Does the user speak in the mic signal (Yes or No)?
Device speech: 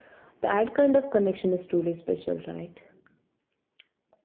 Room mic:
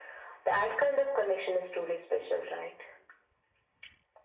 No